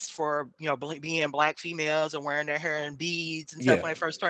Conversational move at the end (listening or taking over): listening